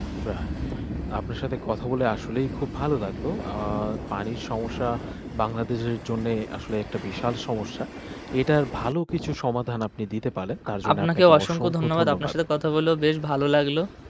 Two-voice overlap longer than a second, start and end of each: 10.8-12.3

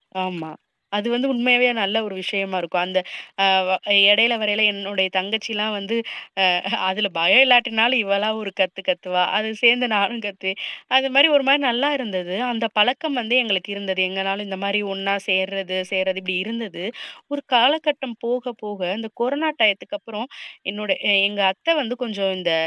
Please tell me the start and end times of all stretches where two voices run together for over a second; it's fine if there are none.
none

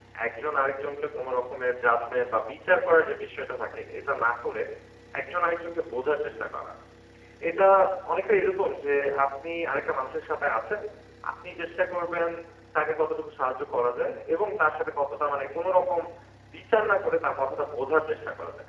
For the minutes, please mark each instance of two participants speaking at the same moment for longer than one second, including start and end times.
none

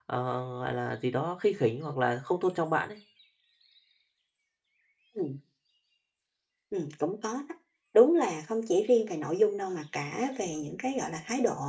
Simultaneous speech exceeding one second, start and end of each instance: none

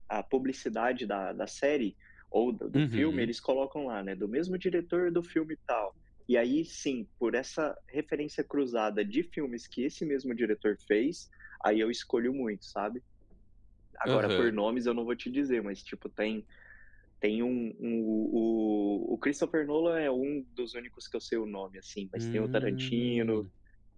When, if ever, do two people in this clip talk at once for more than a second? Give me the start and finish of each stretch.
22.2-23.4

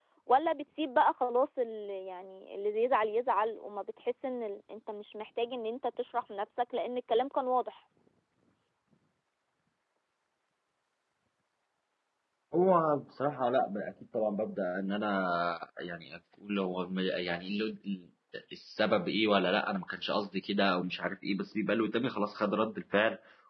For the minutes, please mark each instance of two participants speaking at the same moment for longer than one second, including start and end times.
none

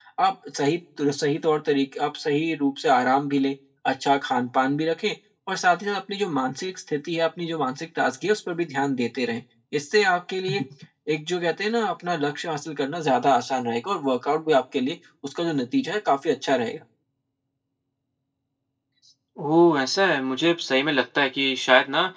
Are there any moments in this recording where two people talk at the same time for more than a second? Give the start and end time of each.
none

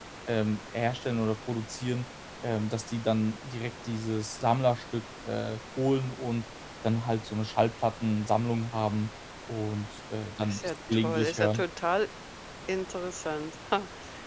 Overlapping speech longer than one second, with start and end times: 10.4-11.6

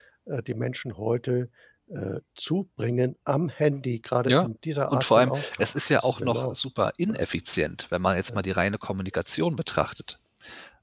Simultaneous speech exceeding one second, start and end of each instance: 4.9-6.5

